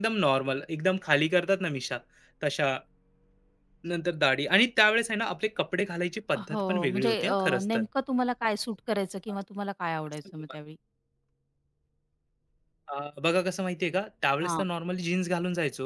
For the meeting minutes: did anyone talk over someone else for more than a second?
Yes, from 6.3 s

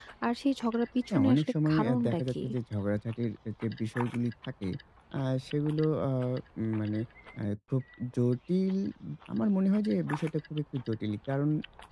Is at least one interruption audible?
Yes, from 1.1 s

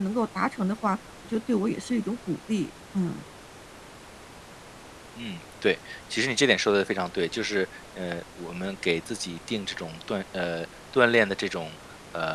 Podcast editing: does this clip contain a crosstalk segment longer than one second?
No

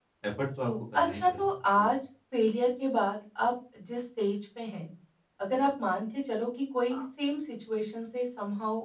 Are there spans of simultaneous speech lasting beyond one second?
Yes, from 0.6 s

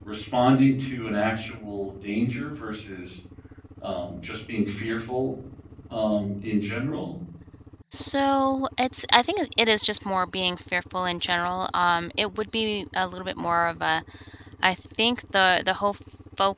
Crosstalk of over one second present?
No

